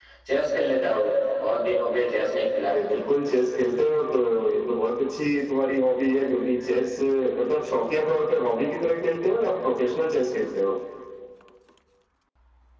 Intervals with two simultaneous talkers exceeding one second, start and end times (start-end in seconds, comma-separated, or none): none